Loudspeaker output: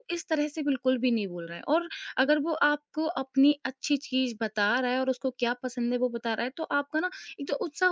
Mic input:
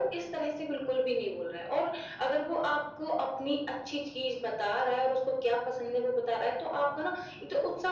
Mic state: echo only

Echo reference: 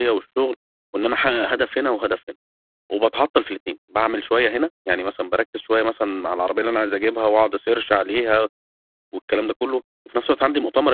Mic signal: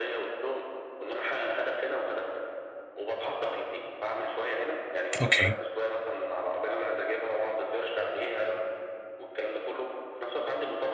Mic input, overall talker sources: both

